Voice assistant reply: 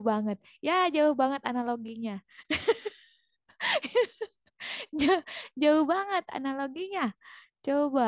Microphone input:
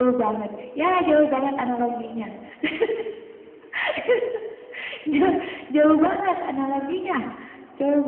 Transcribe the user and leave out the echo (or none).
none